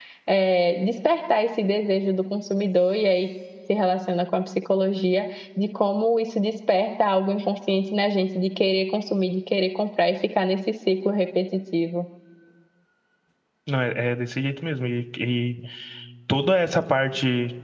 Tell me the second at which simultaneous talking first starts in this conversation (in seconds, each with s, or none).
none